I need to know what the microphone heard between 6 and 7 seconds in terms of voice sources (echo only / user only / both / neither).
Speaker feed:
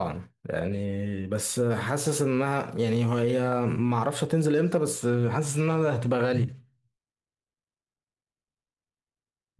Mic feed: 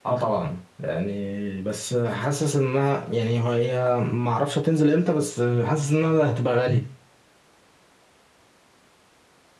echo only